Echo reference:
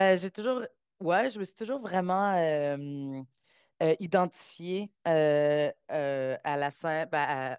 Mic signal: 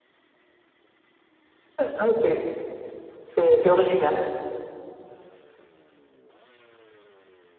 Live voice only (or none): Ouais, c'est c'est- c'est original.